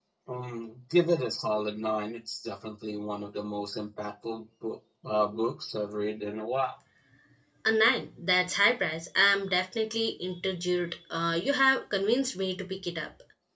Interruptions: none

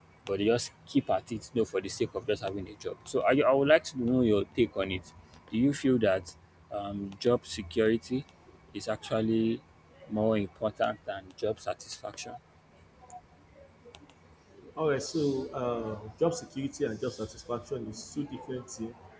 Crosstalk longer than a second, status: none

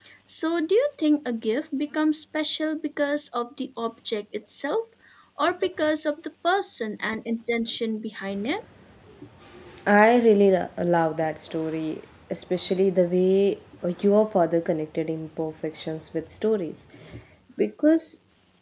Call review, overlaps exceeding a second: none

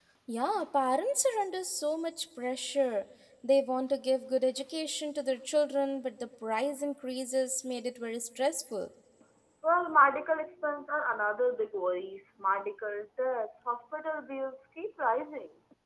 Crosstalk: none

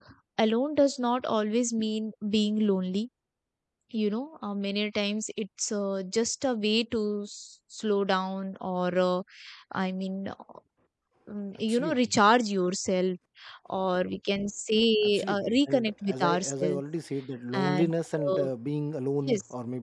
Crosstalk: present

